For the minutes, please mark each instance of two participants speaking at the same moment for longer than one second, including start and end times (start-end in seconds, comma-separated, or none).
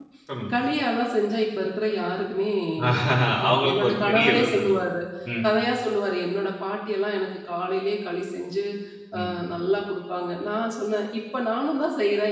3.5-4.8